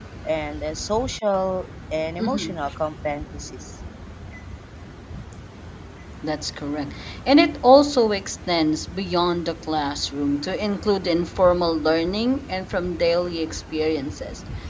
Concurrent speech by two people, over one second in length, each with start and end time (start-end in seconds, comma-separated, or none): none